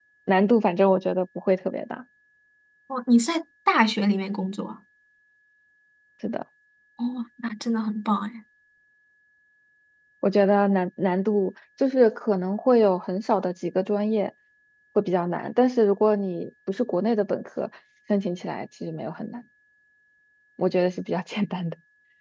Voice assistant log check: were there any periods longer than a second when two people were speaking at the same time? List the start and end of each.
none

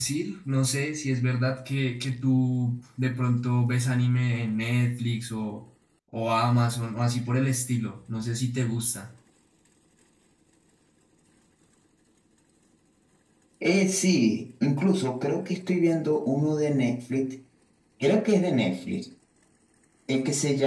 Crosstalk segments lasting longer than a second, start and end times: none

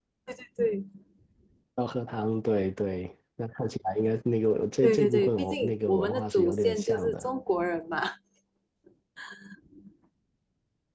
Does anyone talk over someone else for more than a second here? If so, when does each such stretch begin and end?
4.8-7.3

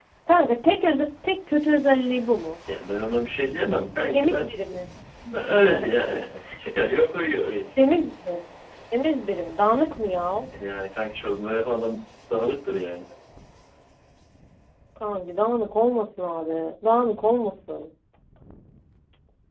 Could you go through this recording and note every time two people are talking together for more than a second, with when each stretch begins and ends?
none

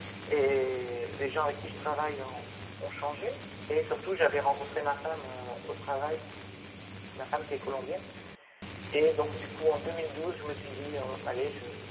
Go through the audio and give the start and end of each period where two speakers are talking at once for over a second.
none

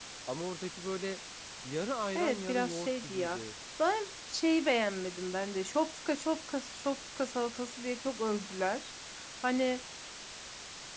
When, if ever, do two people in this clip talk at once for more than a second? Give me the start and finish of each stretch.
2.1-3.4

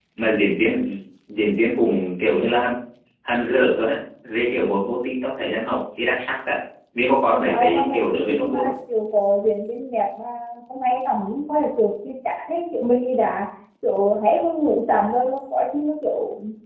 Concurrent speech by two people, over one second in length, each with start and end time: 7.5-8.7

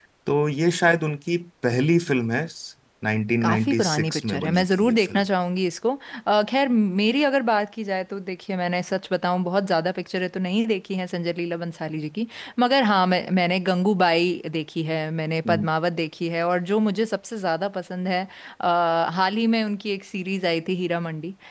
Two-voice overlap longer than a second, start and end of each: 3.4-5.2

